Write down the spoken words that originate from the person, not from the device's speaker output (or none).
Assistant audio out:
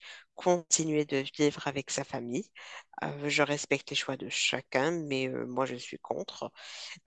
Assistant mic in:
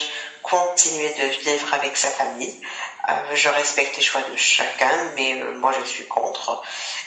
none